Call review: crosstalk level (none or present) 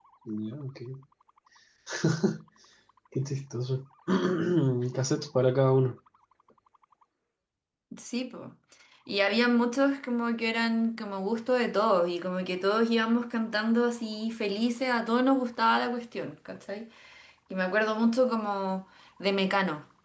none